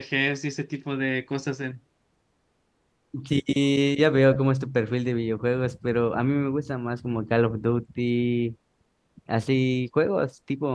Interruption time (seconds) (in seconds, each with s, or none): none